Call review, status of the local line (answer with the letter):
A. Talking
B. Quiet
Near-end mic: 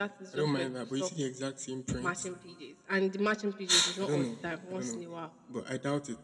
B